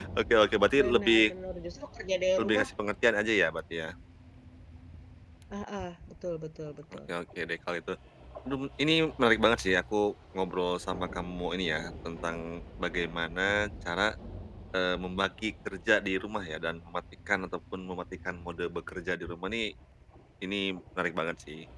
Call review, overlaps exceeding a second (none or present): none